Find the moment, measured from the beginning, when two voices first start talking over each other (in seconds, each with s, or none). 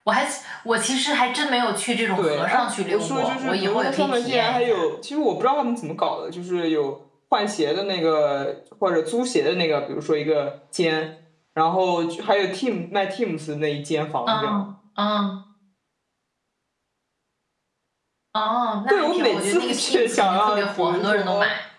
2.2 s